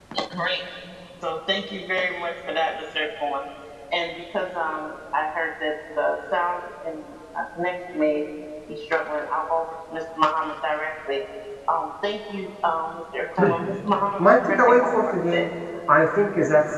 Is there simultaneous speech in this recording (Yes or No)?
Yes